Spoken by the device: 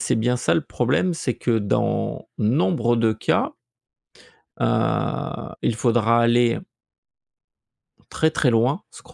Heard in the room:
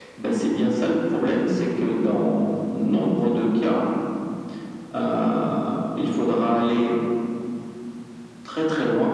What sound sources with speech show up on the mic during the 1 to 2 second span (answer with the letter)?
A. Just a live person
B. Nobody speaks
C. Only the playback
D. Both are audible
C